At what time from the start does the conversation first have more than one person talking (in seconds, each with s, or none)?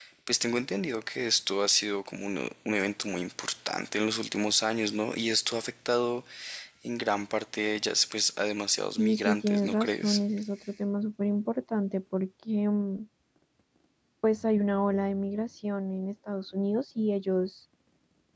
9.0 s